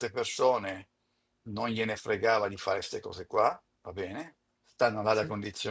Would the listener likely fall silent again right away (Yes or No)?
Yes